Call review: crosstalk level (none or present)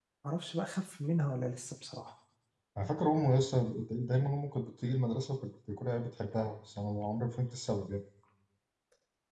none